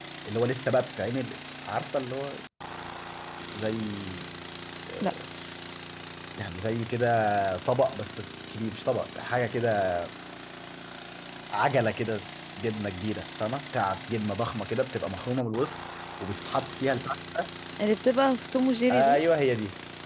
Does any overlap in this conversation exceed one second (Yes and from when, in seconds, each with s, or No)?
No